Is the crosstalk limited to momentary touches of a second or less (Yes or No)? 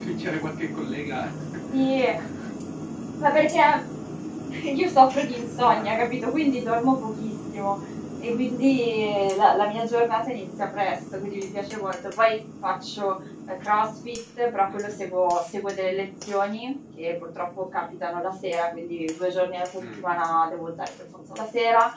Yes